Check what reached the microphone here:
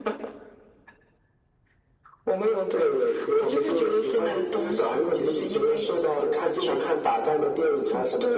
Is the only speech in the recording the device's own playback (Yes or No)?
Yes